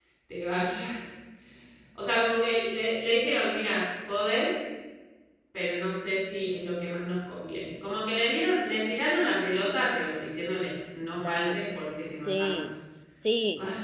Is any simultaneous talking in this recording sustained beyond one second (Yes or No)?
No